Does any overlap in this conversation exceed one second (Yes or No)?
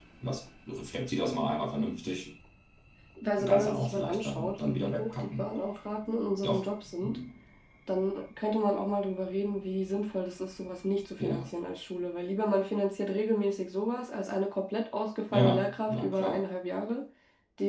Yes